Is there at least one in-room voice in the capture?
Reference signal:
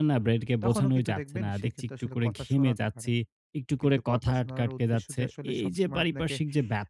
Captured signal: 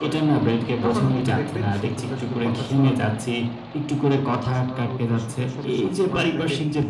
No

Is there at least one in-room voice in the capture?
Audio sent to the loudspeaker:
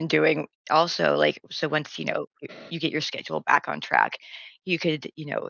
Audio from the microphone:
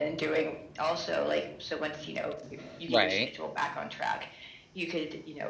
Yes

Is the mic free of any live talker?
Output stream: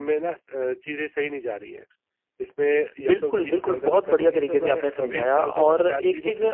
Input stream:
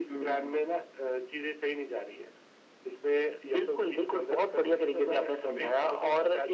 Yes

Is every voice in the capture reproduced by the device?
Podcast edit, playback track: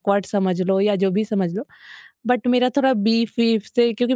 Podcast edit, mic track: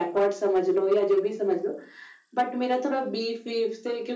Yes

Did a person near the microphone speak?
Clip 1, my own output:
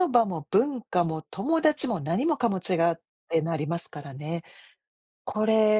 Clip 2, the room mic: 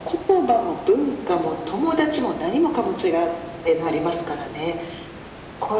No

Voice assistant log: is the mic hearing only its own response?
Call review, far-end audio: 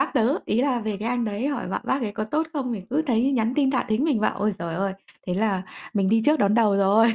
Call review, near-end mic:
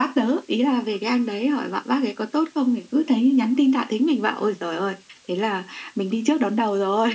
Yes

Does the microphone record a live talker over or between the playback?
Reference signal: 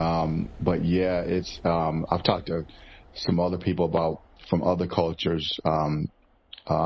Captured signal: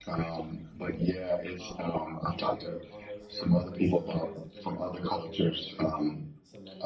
Yes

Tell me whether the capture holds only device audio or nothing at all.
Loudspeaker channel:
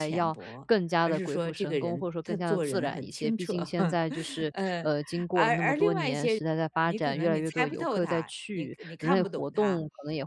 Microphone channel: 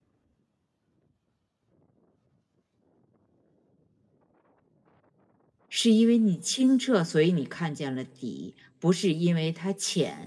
No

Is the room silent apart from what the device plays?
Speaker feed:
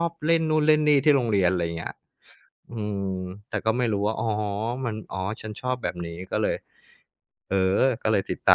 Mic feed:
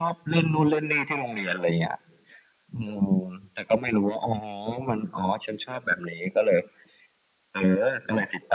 Yes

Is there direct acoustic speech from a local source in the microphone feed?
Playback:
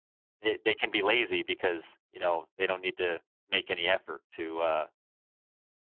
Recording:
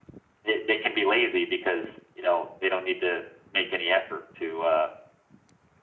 No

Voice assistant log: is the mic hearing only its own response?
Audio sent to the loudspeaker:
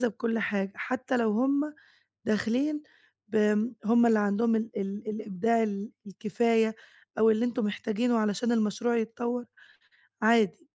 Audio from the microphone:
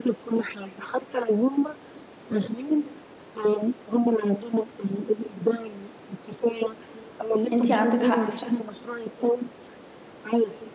No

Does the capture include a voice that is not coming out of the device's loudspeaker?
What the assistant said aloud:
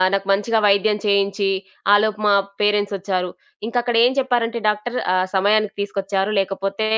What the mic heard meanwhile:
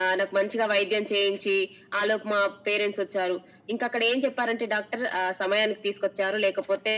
No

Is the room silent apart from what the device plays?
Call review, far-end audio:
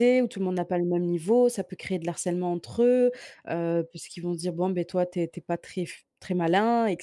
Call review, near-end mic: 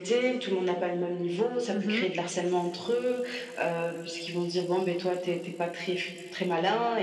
No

